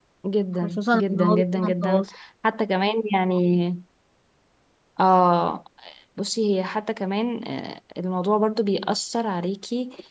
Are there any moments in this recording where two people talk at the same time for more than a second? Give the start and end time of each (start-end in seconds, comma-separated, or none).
0.6-2.0